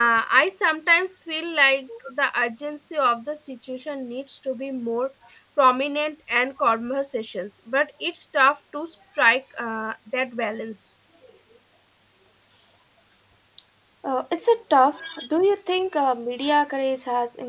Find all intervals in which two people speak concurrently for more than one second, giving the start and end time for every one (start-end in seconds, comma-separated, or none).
none